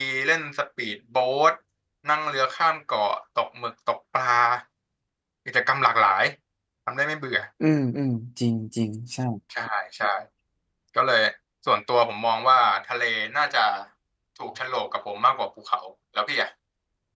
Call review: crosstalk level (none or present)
none